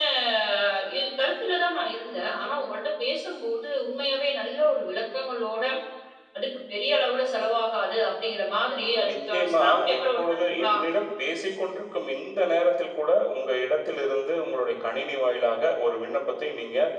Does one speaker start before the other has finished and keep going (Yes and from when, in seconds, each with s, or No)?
Yes, from 9.0 s